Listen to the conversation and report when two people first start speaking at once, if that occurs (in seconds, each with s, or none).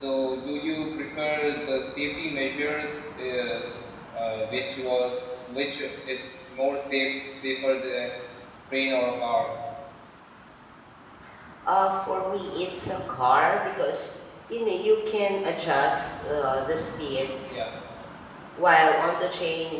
none